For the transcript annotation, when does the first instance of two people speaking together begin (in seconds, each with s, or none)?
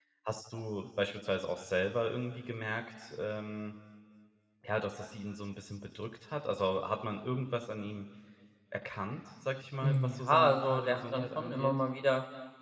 9.8 s